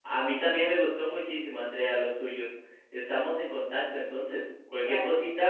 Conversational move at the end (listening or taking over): listening